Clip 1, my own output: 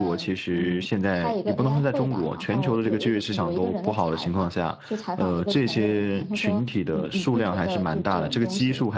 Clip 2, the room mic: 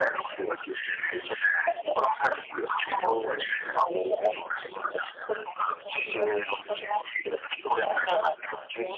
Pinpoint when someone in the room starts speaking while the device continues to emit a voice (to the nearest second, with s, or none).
8 s